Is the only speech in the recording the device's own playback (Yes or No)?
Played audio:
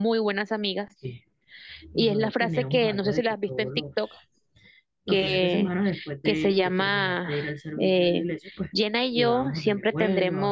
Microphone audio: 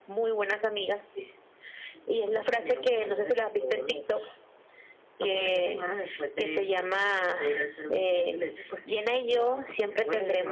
Yes